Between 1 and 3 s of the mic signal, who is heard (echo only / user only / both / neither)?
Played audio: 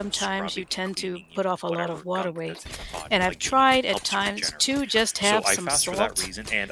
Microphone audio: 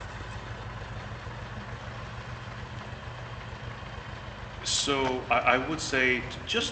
neither